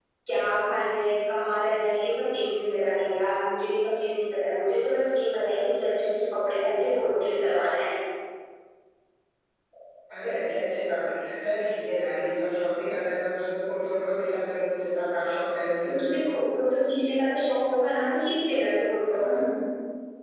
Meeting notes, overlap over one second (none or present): none